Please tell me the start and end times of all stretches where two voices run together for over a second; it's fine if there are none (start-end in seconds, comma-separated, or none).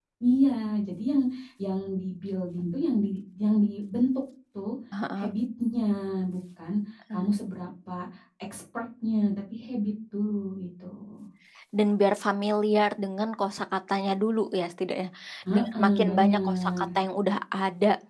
15.5-16.8